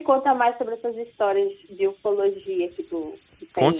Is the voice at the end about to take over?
Yes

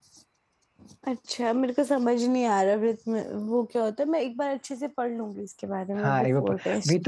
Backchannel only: No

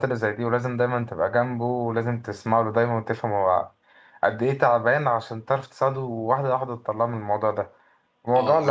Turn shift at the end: Yes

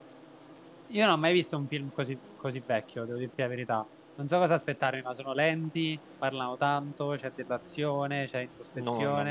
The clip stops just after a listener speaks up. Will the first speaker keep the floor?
No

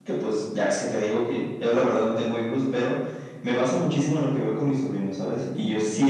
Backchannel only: Yes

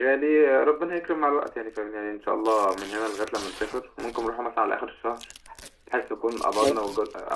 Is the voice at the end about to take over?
No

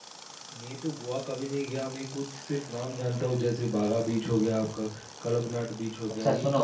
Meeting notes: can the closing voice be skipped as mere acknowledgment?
No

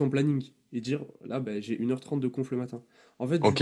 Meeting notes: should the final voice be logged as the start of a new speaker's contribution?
Yes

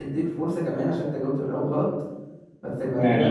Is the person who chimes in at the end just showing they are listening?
Yes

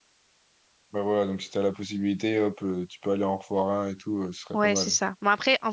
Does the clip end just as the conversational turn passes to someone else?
Yes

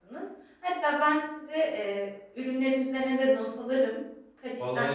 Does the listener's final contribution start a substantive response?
Yes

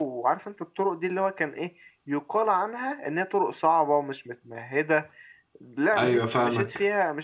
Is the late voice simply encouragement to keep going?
Yes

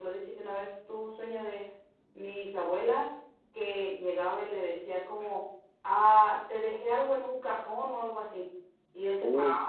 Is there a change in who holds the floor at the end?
No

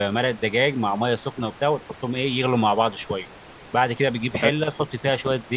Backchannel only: Yes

